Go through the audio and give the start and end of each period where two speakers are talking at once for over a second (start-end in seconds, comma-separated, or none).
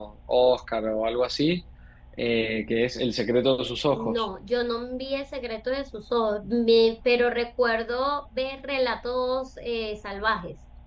none